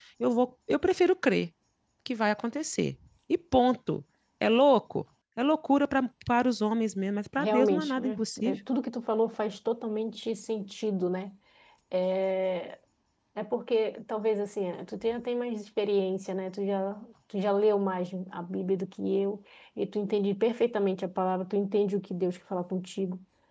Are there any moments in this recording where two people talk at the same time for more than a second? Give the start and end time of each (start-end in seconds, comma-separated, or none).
7.4-8.6